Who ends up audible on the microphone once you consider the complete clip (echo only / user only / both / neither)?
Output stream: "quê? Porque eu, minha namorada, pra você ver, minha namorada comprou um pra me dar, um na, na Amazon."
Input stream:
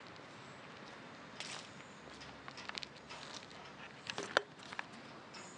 neither